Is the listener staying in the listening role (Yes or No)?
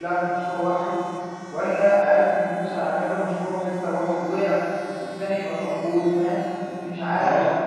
No